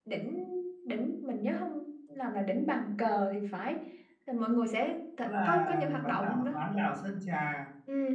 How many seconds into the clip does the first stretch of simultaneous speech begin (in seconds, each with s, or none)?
5.2 s